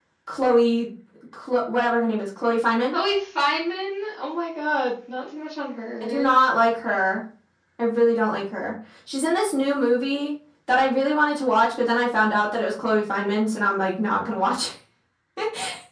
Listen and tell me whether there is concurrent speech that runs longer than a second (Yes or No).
No